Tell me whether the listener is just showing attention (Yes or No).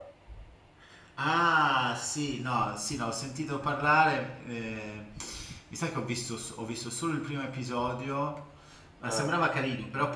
Yes